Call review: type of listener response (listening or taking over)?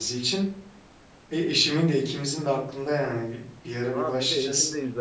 taking over